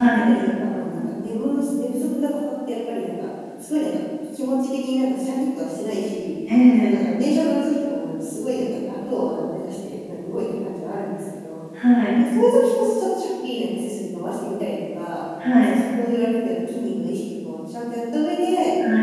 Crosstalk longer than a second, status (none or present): none